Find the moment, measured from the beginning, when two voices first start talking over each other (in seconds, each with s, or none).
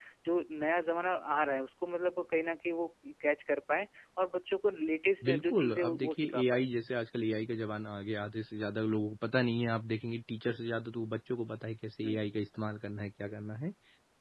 5.2 s